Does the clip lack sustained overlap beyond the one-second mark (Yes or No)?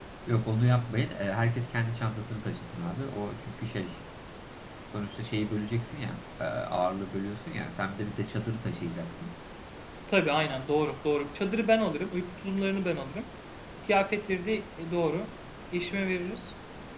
Yes